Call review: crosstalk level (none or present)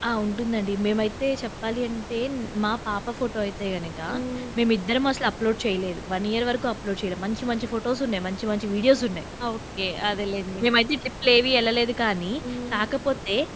none